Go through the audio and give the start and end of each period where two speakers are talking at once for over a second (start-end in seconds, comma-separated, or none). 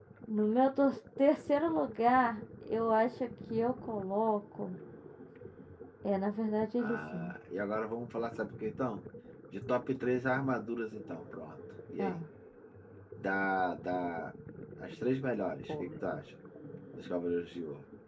none